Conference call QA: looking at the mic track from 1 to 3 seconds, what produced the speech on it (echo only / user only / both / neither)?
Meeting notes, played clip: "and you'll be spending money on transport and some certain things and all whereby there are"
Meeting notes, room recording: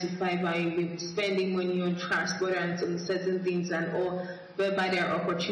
echo only